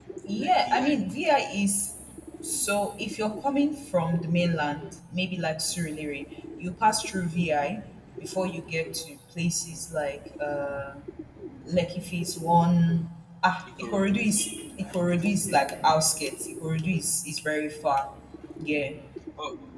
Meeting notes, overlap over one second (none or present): none